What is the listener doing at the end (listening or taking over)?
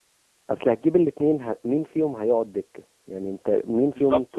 taking over